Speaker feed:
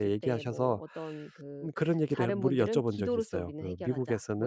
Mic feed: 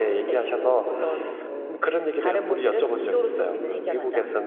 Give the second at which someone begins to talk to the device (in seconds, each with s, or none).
none